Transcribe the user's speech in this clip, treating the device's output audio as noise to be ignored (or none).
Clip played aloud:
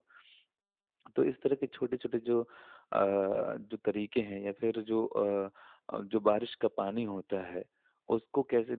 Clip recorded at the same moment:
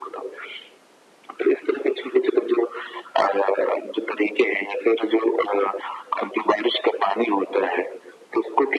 none